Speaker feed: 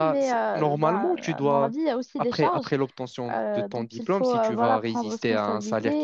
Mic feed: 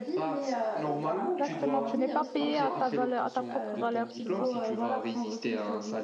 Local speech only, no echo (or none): Exactement, tu n'es pas payé à ta valeur, à ta propre valeur, tu vois.